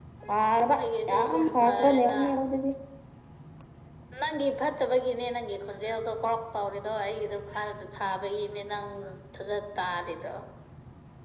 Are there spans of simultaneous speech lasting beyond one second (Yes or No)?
Yes